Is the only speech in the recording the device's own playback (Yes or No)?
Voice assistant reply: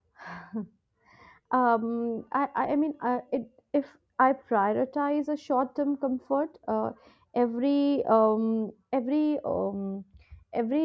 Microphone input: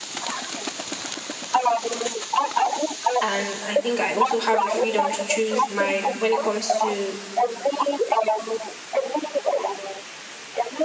No